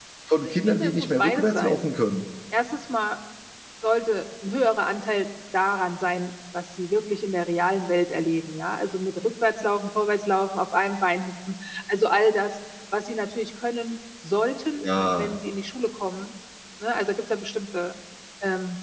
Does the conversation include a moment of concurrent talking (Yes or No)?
Yes